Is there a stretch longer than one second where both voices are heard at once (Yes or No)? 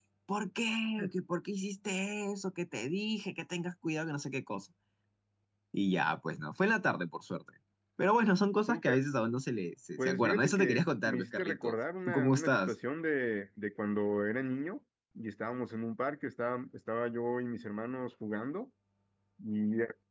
Yes